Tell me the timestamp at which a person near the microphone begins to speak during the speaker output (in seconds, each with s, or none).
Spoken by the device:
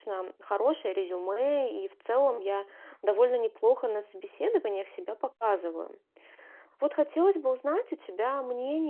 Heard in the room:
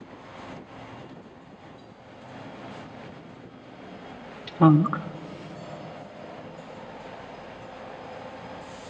4.5 s